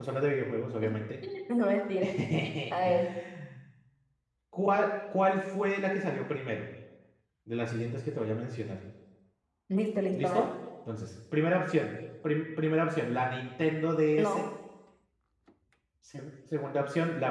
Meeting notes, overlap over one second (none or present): none